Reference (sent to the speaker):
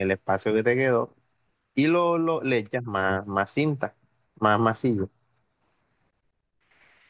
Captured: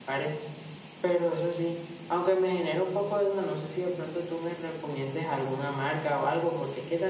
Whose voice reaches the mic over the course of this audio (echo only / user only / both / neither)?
user only